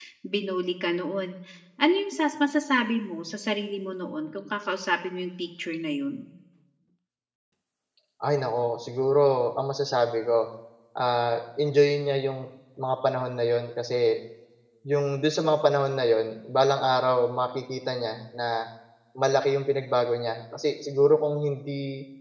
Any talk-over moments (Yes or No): No